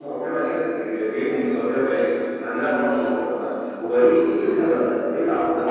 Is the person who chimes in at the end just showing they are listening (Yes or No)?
No